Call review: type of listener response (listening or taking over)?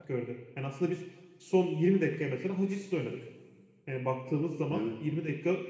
listening